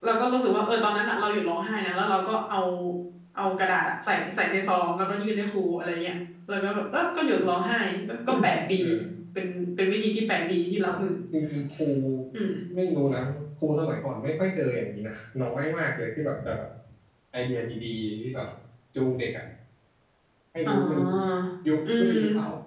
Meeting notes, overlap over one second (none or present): none